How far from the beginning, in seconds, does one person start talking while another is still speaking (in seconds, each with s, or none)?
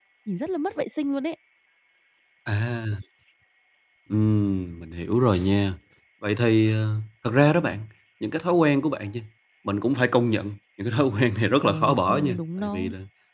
11.6 s